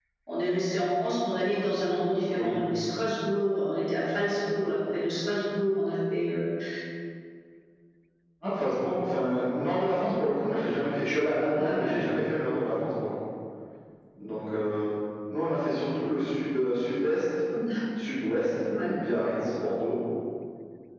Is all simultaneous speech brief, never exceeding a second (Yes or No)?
Yes